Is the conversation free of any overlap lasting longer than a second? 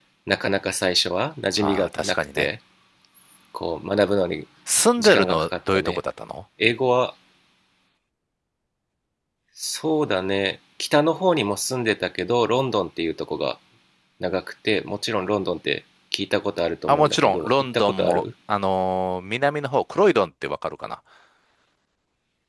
No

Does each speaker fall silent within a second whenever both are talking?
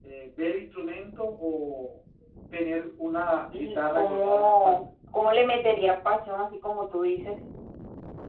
No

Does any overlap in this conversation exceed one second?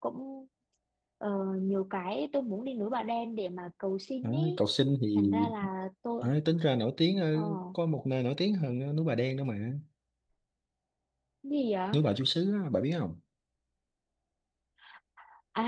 No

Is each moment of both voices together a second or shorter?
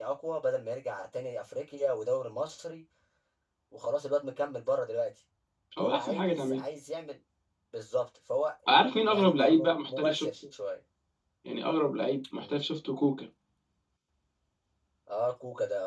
No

